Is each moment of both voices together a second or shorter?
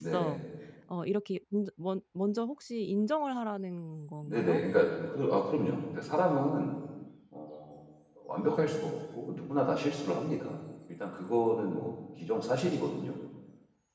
Yes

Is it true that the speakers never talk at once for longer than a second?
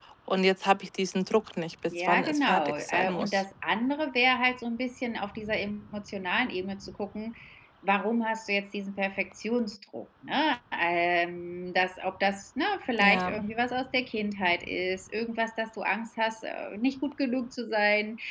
No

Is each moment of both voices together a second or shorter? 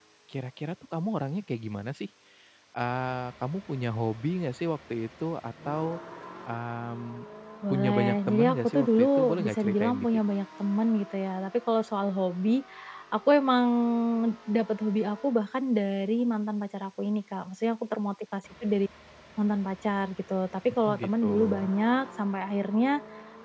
No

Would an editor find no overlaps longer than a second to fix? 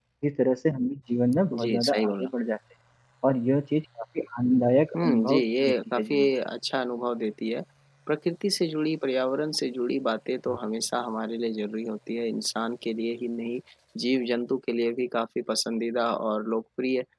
No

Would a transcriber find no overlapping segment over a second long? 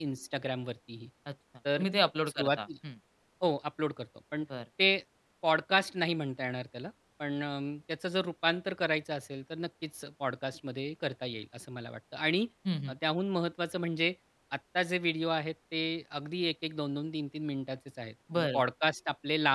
Yes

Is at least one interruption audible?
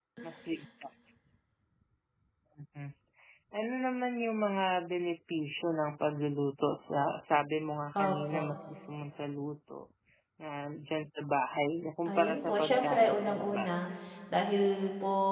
Yes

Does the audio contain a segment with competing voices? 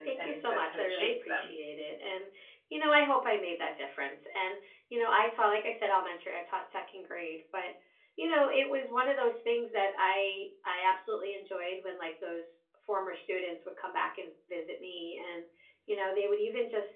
Yes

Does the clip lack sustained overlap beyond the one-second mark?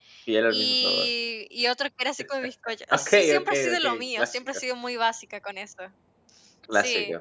No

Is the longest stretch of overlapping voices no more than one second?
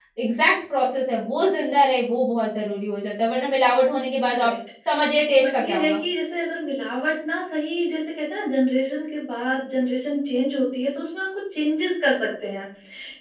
Yes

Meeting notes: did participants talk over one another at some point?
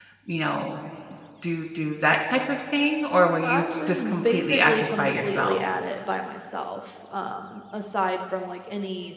Yes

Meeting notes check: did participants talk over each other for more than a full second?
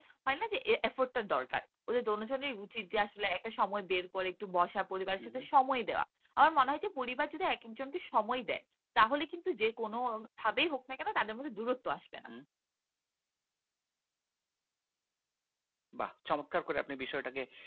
No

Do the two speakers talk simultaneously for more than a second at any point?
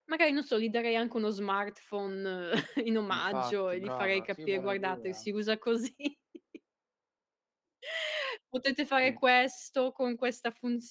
Yes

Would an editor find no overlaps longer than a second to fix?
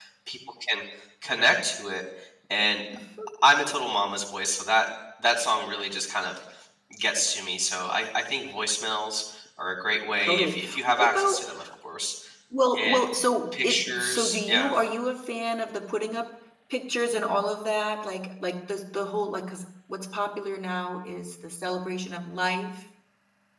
No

